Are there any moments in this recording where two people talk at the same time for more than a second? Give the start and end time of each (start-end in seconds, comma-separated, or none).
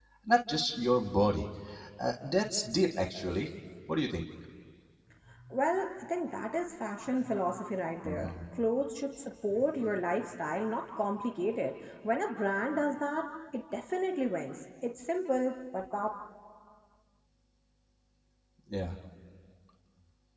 none